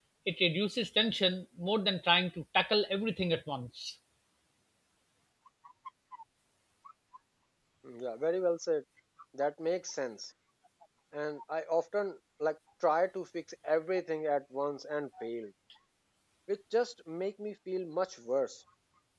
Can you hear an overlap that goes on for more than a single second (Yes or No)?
No